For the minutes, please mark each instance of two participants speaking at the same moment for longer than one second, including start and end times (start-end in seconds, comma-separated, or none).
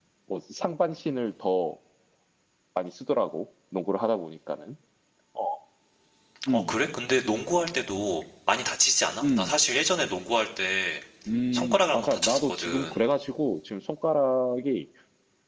11.5-13.0